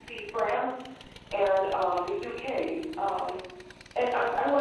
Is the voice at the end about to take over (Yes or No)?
No